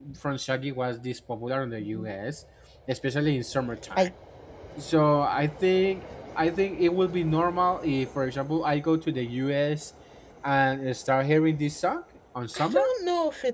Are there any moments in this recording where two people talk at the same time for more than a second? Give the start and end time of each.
none

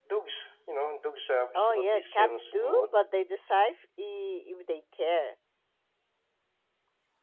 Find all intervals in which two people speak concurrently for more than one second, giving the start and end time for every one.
1.6-3.0

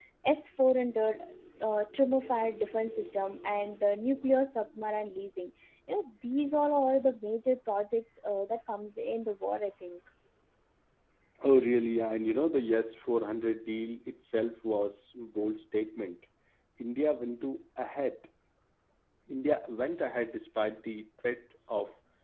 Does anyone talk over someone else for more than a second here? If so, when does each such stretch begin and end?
none

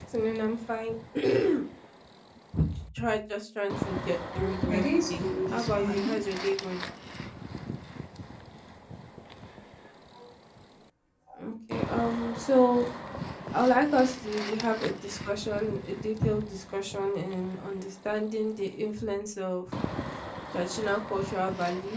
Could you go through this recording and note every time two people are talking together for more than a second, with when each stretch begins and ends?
4.3-6.2

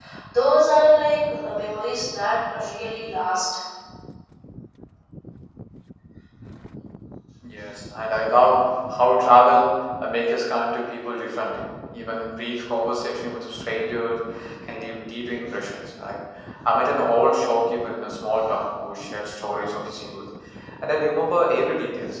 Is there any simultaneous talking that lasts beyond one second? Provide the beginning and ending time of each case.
none

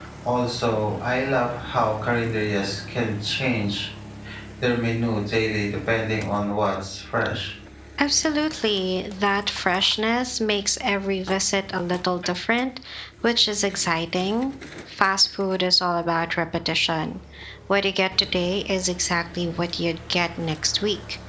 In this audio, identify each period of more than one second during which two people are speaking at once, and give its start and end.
none

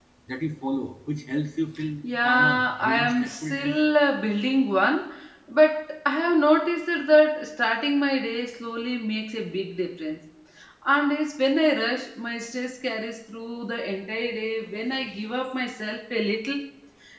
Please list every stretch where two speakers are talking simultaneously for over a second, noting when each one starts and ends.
2.2-3.8

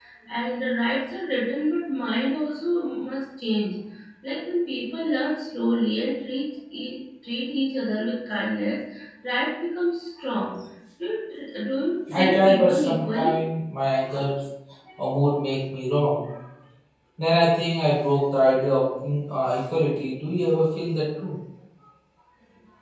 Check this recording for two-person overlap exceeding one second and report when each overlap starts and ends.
12.1-13.4

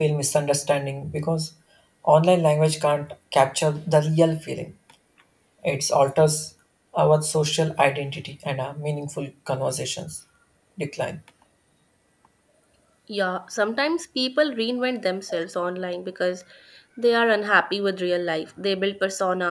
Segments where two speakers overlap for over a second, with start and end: none

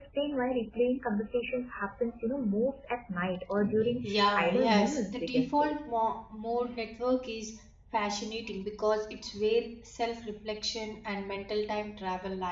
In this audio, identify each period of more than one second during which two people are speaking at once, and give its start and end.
4.0-5.7

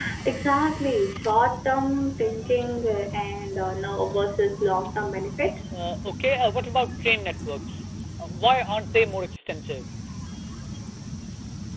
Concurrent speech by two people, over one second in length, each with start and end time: none

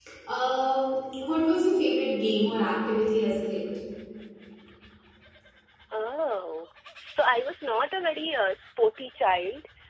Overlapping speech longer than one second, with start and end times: none

